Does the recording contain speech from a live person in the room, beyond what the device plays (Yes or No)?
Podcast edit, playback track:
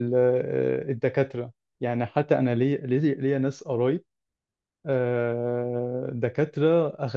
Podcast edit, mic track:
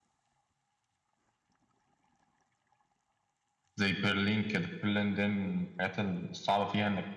Yes